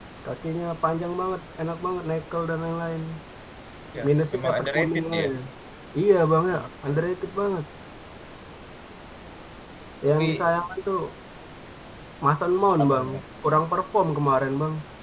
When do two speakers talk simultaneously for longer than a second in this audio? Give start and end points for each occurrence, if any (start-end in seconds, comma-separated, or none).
4.0-5.3